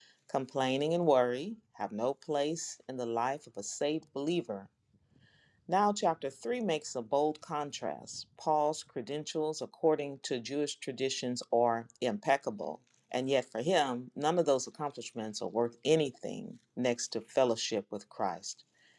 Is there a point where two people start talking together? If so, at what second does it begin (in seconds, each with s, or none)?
none